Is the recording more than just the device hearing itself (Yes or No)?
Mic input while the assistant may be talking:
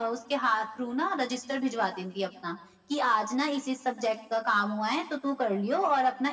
No